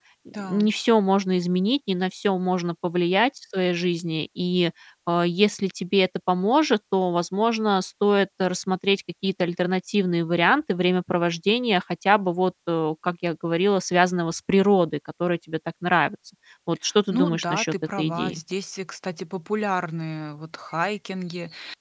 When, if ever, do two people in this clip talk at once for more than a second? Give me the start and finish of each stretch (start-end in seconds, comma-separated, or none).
17.1-18.4